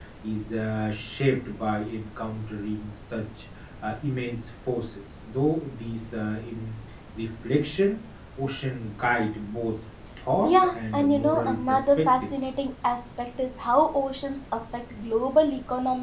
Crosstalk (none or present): present